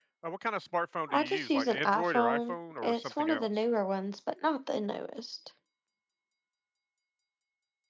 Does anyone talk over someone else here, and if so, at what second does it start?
1.1 s

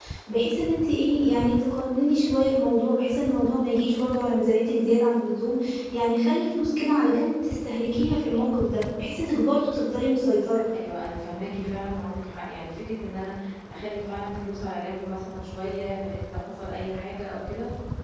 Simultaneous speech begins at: none

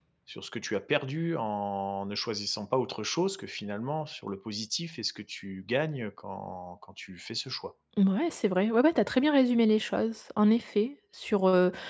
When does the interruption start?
none

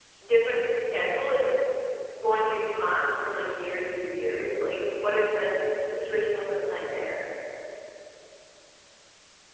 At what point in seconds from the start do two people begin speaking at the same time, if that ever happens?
none

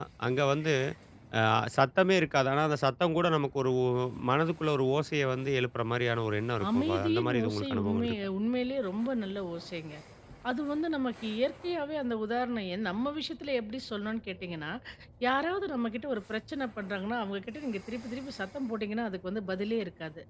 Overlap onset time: 6.6 s

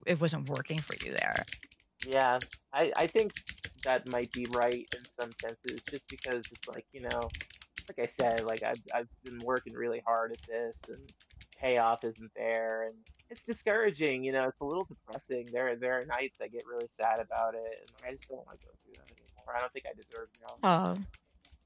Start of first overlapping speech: none

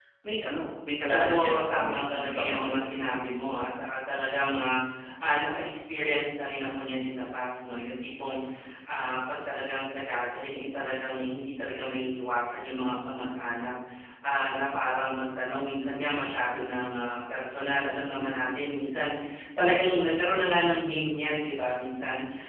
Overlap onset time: 1.1 s

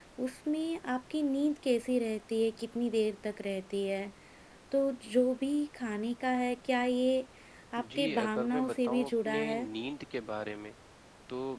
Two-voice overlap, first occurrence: 7.8 s

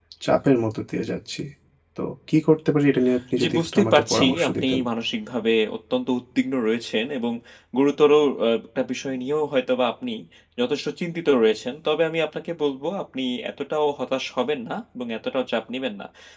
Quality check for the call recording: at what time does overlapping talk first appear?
3.4 s

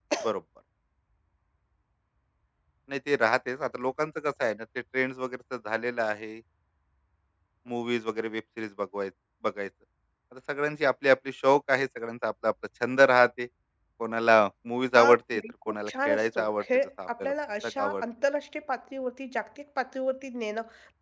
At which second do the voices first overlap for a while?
14.9 s

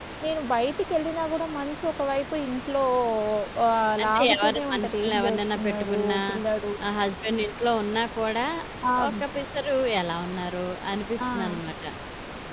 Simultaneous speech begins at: 4.0 s

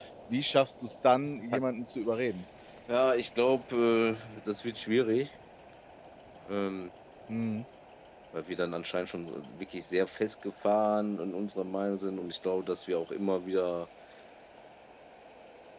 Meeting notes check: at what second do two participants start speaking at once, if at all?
none

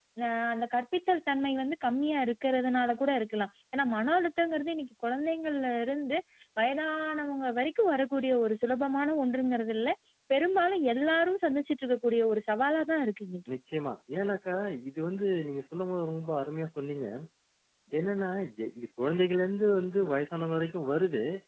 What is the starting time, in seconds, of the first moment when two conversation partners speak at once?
none

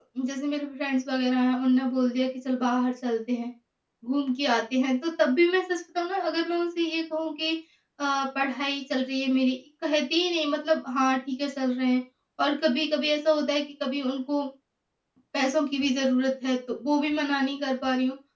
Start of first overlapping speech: none

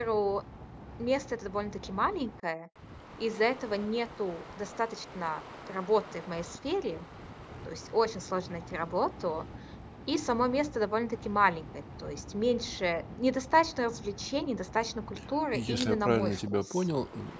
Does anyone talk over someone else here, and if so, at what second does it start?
15.5 s

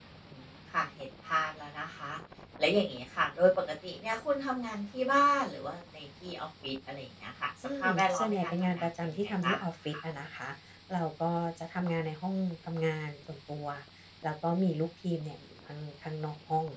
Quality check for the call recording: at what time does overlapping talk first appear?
7.6 s

